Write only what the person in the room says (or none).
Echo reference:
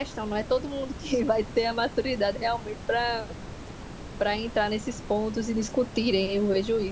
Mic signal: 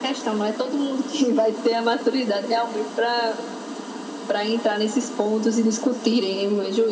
none